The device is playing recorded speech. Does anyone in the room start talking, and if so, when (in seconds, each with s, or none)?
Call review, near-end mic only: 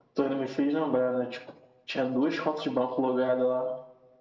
none